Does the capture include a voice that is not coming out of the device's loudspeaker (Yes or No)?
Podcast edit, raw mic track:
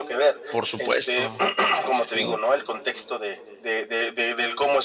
Yes